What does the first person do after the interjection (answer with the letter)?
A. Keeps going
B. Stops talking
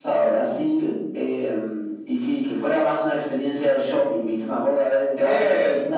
A